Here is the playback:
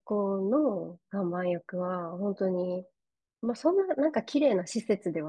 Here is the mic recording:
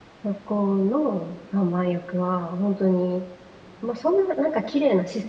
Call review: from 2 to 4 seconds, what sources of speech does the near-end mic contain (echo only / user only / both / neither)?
echo only